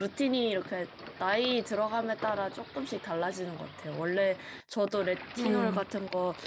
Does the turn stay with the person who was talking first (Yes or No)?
Yes